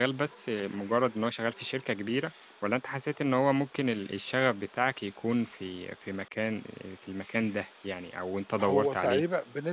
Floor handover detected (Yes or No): Yes